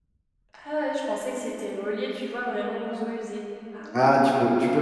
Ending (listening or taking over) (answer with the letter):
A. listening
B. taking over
B